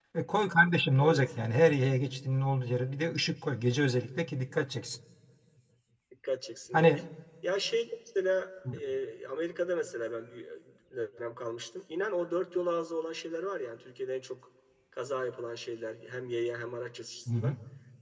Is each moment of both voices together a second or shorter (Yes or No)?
Yes